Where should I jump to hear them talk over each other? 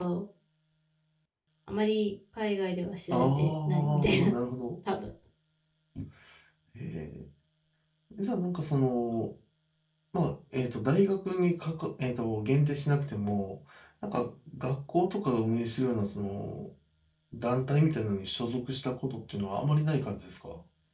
3.1 s

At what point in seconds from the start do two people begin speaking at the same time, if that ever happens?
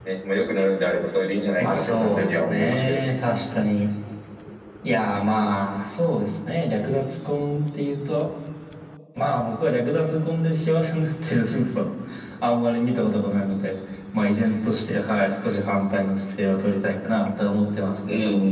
1.6 s

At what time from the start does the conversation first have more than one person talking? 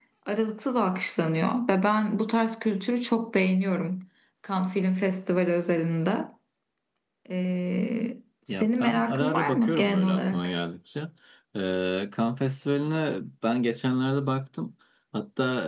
8.5 s

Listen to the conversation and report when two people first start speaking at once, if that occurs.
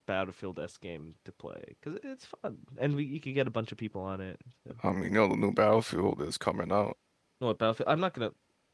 none

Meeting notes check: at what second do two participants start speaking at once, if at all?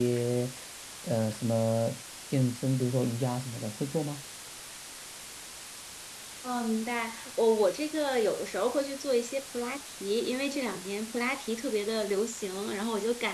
none

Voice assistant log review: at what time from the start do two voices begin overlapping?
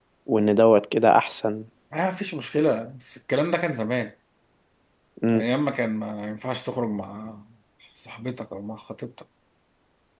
none

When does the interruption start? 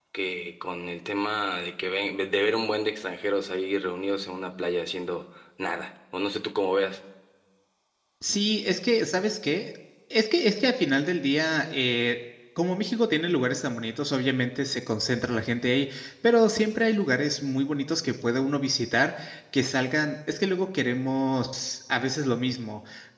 none

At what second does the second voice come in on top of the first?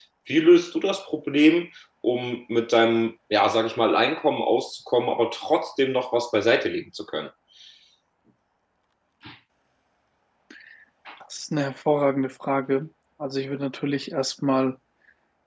none

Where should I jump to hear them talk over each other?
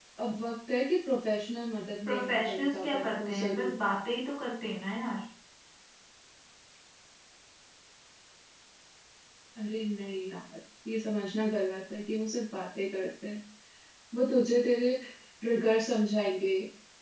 2.1 s

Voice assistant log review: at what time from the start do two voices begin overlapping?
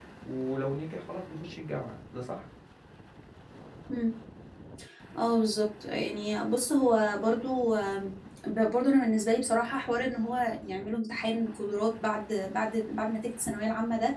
none

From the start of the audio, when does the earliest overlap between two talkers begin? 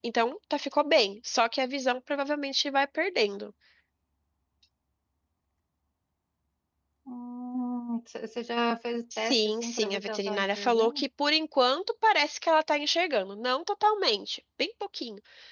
9.1 s

